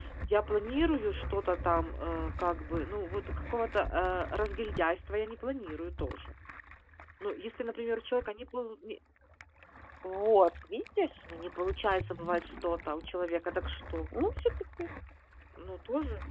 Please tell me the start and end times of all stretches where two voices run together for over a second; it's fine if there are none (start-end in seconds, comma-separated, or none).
none